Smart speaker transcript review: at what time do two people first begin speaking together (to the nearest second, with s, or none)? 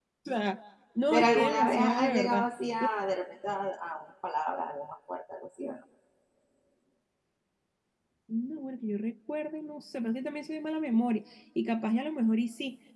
1 s